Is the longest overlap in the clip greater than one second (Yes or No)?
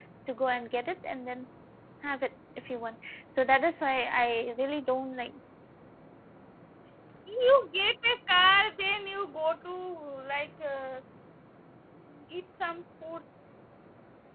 No